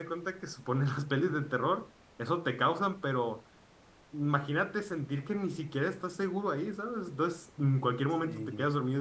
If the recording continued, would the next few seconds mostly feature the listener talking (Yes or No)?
No